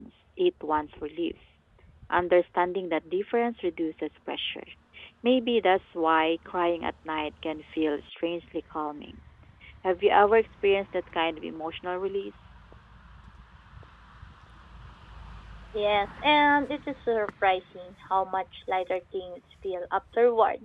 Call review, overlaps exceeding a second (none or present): none